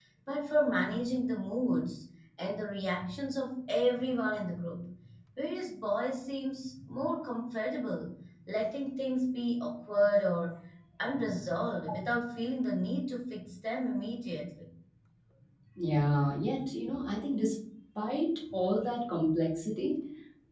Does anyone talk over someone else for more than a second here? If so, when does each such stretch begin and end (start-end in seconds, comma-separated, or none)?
none